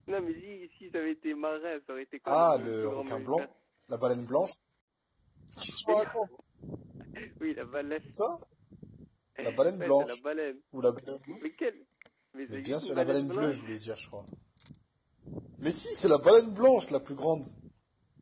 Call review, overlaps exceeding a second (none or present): present